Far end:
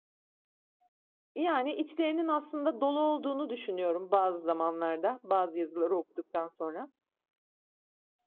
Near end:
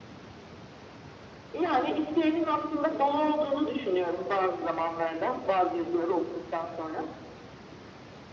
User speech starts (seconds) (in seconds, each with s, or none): none